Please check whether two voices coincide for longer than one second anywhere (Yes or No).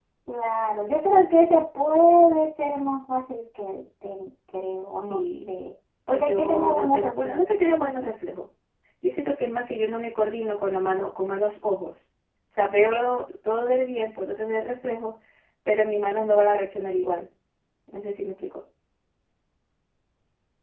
Yes